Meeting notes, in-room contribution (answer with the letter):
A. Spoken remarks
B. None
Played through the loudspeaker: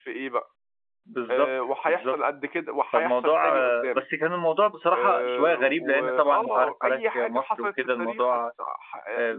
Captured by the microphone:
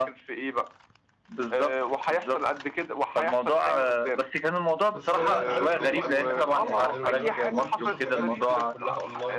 A